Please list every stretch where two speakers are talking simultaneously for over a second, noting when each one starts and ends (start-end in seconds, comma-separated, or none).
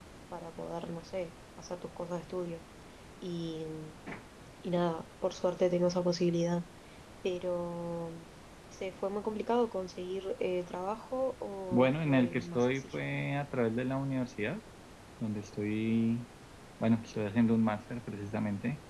11.7-13.0